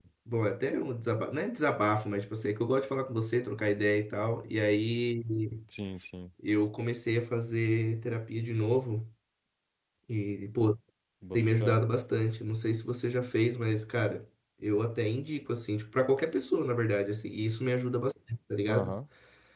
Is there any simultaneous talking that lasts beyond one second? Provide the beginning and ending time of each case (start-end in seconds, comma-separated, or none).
none